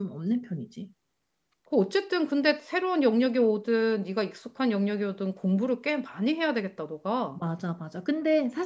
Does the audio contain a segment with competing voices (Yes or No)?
No